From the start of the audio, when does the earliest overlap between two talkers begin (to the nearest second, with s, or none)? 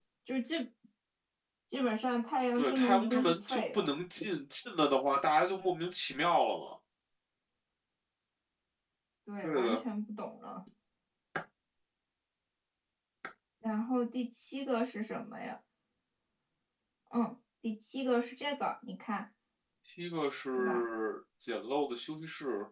3 s